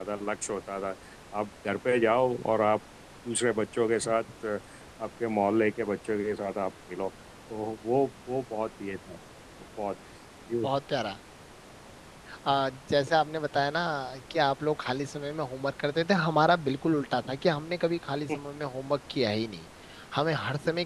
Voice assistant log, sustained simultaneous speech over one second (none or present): none